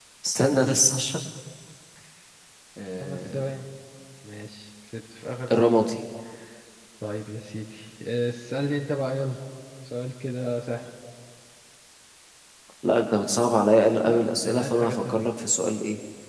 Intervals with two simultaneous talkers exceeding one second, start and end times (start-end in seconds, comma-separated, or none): 14.1-15.3